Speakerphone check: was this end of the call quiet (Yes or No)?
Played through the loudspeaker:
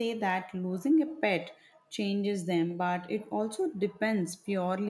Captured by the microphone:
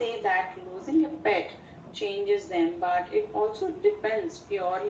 Yes